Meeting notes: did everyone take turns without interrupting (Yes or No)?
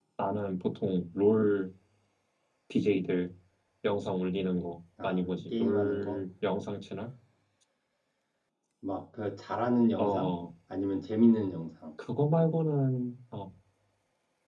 No